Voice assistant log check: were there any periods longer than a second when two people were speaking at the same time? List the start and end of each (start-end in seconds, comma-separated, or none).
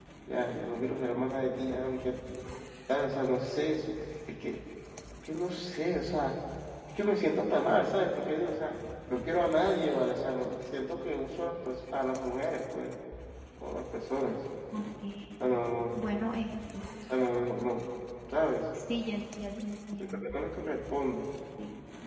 none